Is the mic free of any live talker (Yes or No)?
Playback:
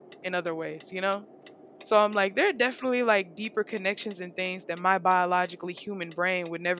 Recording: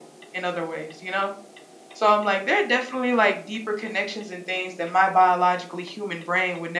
Yes